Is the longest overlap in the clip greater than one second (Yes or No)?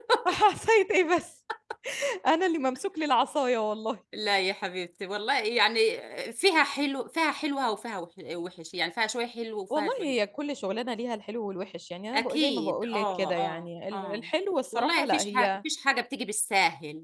Yes